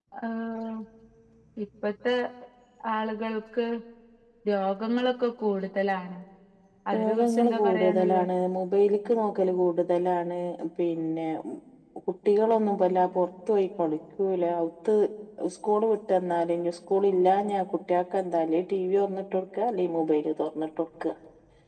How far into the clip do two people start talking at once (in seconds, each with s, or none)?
6.9 s